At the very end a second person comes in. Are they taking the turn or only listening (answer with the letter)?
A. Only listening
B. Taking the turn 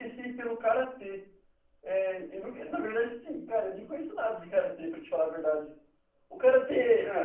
A